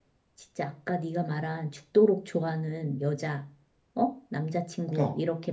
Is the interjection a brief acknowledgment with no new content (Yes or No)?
Yes